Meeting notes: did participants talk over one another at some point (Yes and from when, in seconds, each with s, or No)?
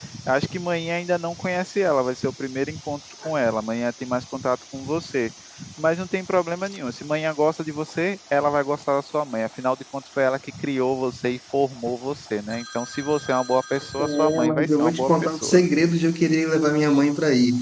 Yes, from 14.0 s